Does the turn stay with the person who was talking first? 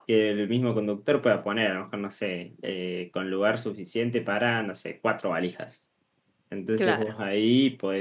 Yes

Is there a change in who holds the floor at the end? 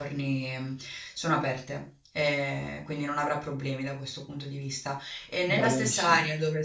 No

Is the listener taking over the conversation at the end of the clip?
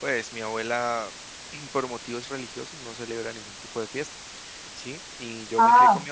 No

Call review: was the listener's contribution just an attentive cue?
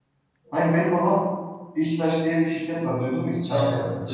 No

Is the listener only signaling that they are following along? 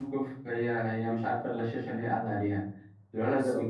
Yes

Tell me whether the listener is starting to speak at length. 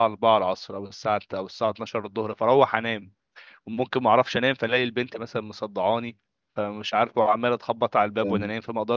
No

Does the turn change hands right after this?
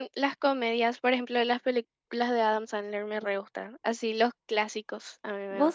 Yes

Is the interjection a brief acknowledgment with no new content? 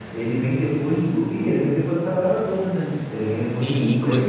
No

